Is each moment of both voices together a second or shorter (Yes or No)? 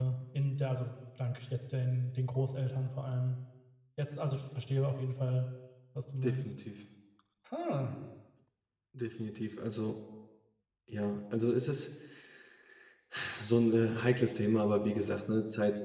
Yes